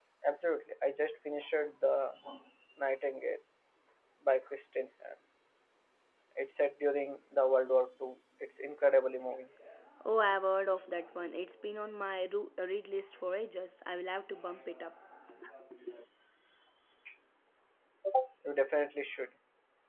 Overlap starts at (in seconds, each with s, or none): none